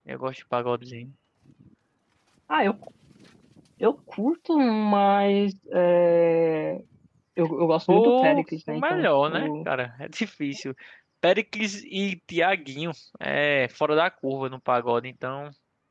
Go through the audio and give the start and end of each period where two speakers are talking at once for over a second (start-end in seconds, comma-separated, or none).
7.9-9.5